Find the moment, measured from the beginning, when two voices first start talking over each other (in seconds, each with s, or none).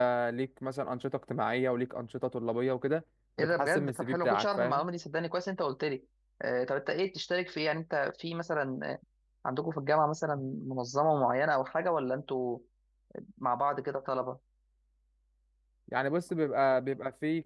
3.4 s